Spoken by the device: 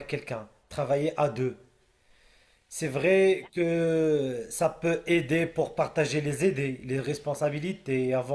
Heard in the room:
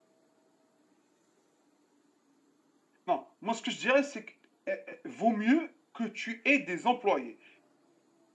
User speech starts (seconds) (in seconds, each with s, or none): 3.1 s